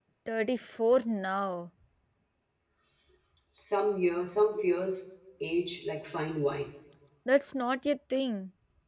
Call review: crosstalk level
none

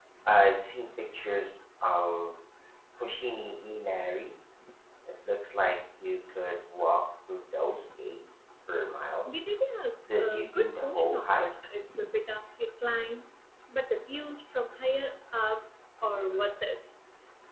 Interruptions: present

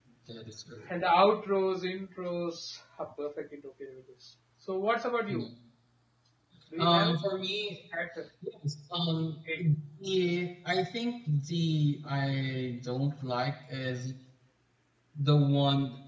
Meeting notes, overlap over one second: none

